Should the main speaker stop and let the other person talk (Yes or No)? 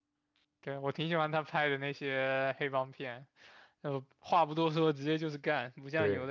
No